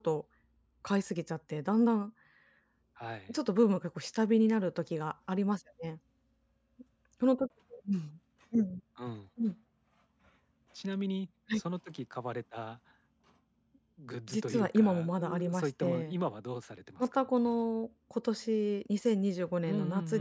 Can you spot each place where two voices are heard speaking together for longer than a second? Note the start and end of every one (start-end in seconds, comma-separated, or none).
14.3-16.2